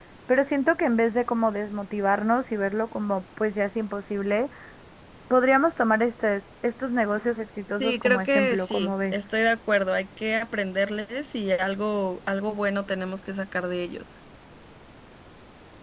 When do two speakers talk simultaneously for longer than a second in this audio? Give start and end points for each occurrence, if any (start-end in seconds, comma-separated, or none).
7.8-9.1